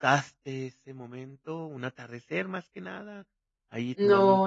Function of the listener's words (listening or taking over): taking over